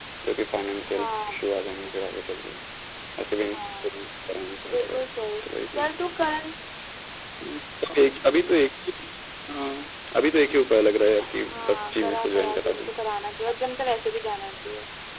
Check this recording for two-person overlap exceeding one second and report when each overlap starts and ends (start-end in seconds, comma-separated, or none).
11.2-12.9